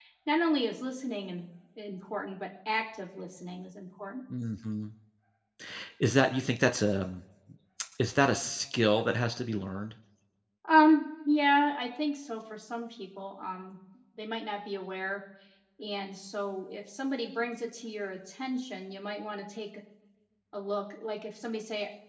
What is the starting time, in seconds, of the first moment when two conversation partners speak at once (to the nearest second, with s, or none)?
none